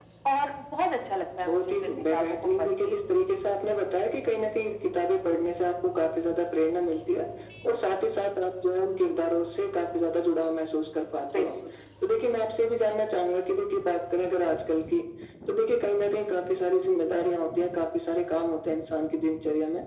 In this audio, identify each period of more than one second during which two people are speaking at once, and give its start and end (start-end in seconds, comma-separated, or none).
1.4-3.0